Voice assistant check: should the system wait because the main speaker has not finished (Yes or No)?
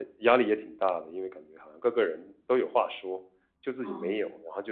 Yes